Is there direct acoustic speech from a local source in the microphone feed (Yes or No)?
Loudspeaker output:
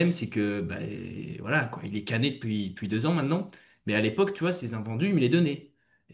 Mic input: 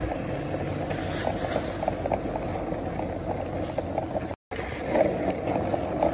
No